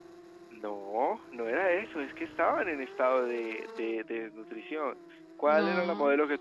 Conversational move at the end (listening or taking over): listening